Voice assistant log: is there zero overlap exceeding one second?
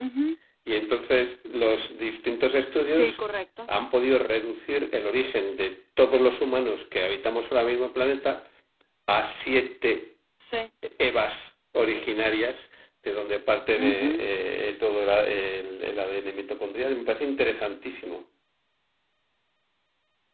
Yes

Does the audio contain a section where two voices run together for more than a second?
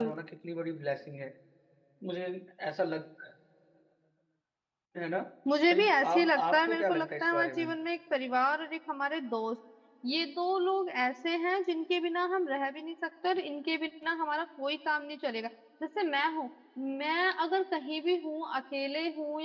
Yes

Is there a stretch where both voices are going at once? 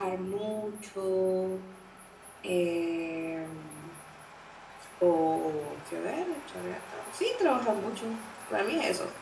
No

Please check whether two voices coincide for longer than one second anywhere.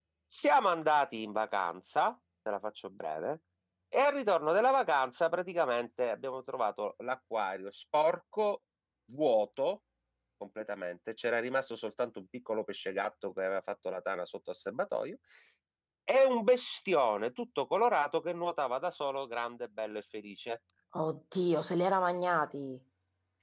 No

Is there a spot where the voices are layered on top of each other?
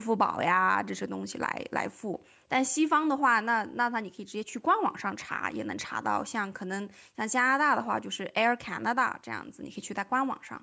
No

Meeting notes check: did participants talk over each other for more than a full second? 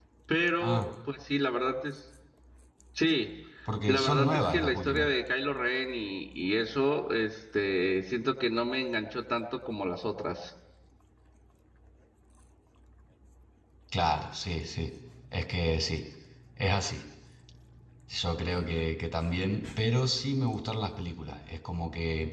Yes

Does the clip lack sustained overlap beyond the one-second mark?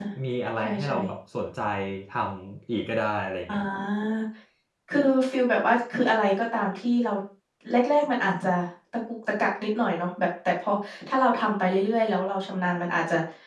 Yes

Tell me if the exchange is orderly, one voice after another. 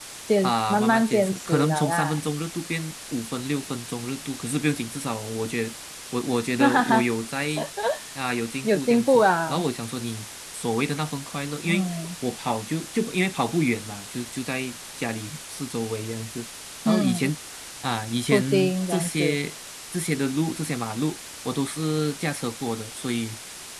No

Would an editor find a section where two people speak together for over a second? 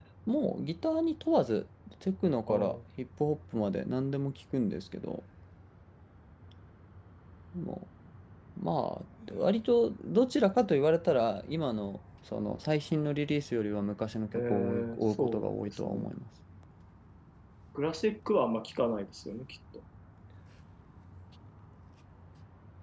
Yes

